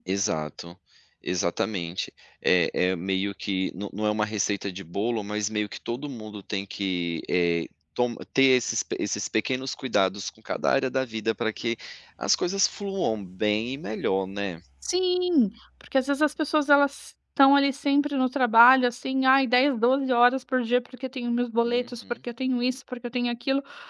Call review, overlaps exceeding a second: none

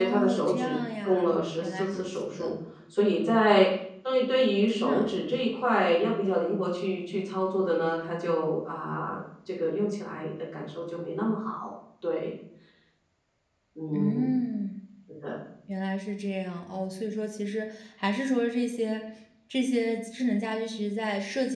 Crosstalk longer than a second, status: present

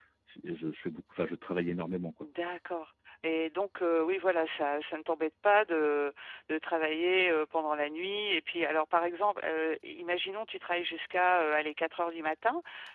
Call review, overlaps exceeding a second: none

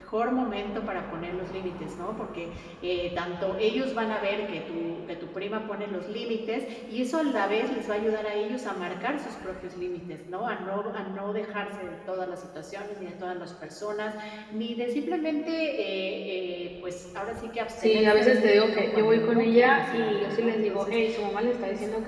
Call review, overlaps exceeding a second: present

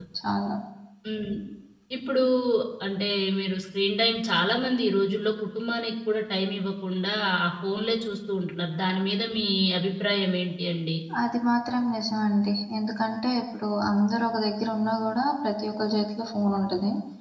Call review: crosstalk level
none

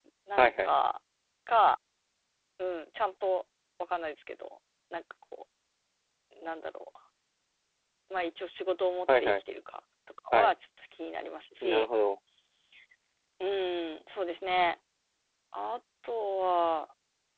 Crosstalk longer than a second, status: none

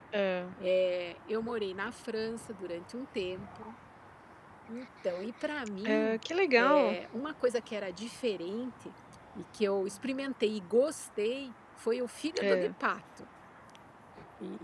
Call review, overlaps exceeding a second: none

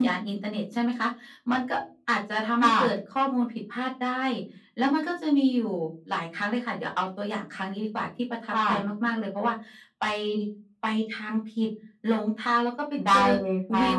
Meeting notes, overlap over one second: none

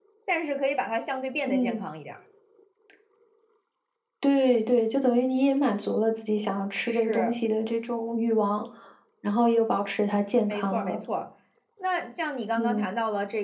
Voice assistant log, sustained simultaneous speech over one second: none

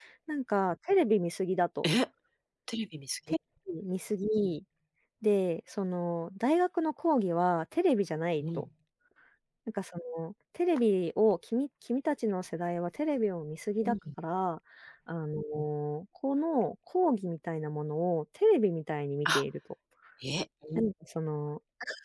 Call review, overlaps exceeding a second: none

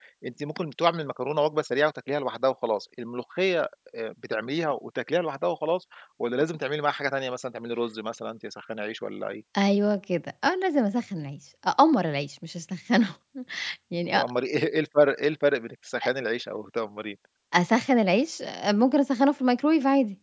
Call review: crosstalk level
none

